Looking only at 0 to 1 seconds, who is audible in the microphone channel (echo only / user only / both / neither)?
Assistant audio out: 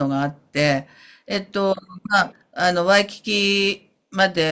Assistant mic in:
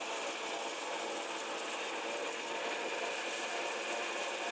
neither